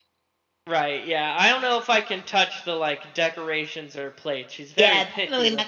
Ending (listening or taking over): taking over